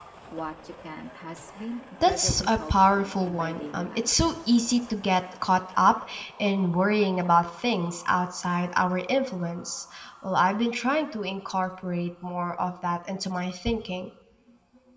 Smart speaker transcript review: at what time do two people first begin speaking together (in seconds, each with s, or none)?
2.0 s